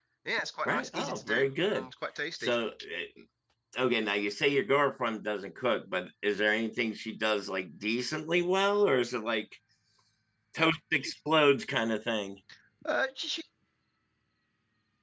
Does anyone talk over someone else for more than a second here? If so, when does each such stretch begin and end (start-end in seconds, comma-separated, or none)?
0.6-1.9